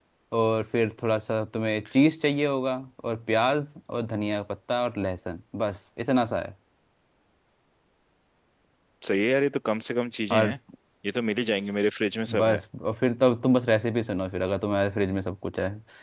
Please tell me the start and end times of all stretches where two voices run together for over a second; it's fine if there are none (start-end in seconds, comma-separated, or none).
none